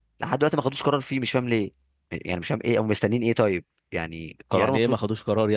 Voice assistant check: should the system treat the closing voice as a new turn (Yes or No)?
Yes